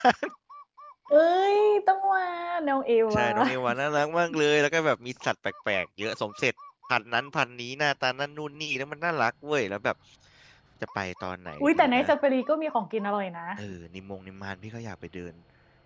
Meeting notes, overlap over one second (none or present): none